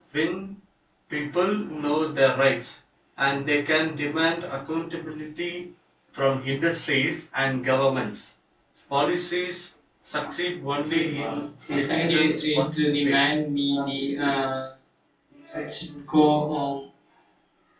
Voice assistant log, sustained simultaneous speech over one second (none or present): present